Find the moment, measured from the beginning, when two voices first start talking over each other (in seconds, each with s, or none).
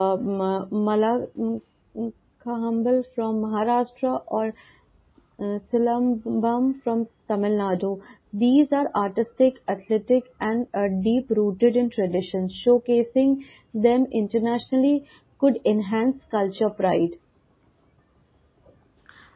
none